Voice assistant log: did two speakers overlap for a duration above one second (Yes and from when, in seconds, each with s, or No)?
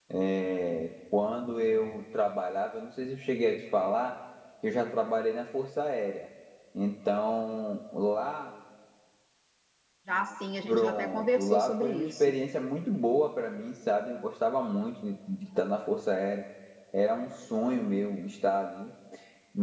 Yes, from 10.7 s